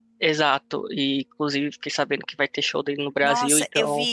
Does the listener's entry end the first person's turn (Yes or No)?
Yes